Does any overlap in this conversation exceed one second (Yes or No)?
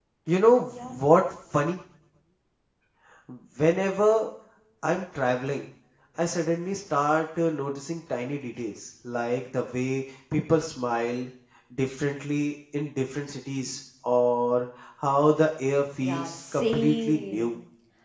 Yes